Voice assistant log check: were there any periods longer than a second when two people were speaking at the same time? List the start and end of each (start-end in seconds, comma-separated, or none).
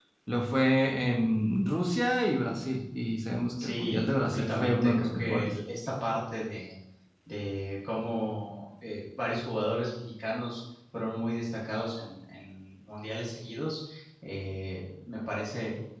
3.6-5.5